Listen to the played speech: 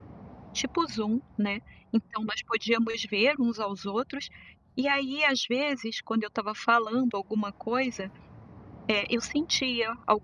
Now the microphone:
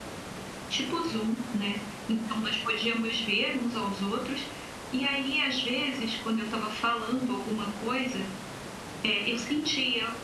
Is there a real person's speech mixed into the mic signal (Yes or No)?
No